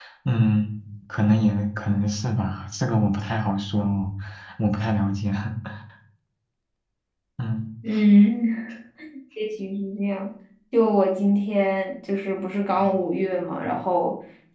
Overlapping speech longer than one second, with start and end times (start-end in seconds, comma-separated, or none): none